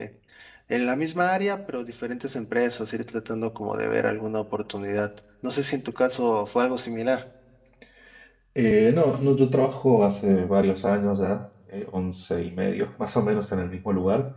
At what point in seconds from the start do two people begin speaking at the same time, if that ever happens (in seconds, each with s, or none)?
none